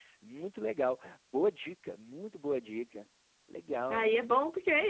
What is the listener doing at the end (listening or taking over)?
taking over